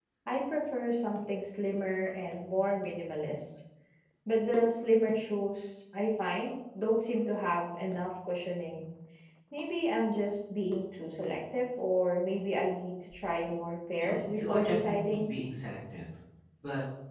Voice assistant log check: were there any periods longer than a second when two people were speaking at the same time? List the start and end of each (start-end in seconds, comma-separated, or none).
14.0-15.2